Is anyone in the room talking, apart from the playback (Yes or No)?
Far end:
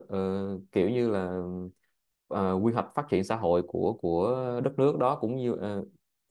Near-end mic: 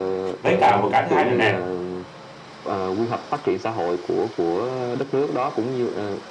Yes